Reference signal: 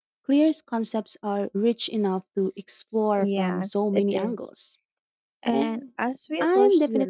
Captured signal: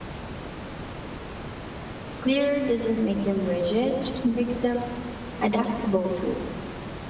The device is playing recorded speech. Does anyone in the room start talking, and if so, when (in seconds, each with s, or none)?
2.2 s